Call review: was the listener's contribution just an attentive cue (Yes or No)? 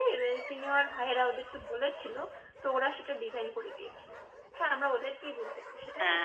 No